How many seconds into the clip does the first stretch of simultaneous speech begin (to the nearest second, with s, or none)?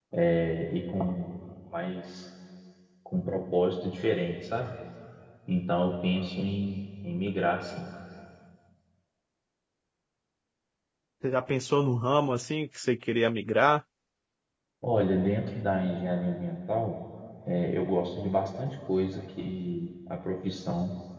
none